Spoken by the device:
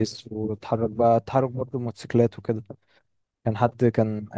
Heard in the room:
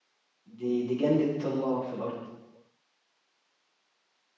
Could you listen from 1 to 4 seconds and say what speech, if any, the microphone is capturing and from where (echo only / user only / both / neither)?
user only